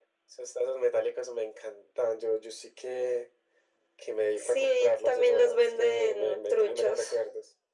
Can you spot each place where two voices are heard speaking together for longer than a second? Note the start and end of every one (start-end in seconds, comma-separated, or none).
4.4-7.1